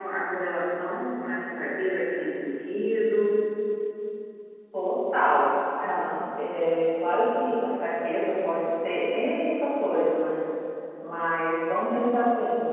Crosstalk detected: No

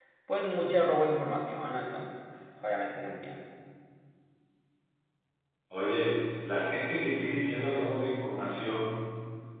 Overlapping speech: No

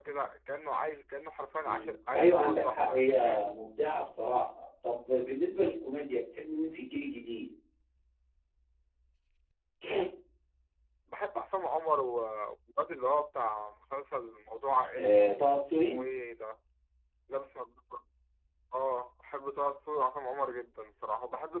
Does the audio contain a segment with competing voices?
Yes, from 1.6 s

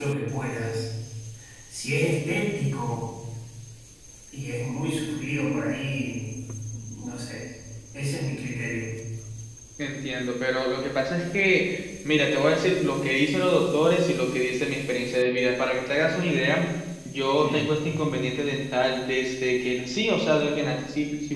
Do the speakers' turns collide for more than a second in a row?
No

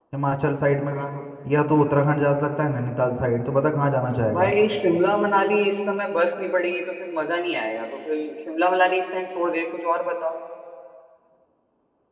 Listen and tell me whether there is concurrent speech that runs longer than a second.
No

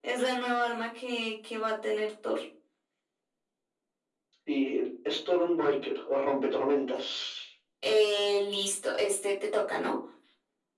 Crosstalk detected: No

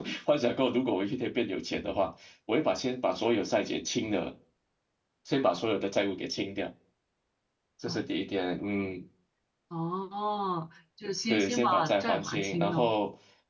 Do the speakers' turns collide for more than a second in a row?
Yes, from 11.3 s

